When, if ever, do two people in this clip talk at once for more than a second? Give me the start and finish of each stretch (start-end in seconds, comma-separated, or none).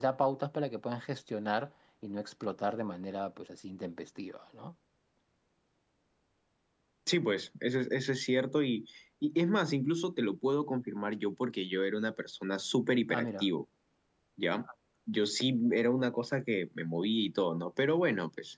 none